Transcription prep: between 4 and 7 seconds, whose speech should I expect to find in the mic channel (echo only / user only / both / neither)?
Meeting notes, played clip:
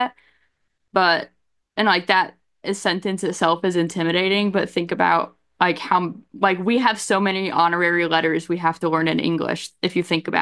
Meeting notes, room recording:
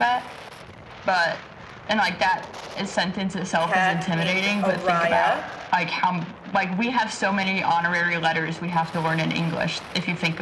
both